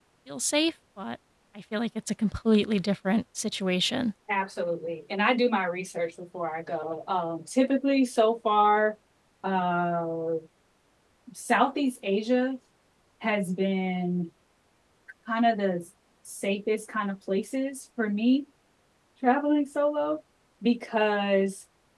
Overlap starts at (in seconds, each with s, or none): none